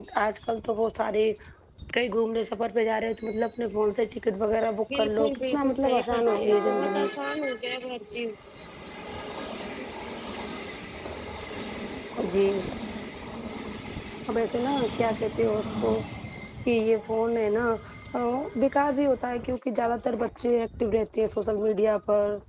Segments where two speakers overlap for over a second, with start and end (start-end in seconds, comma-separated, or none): 4.9-7.1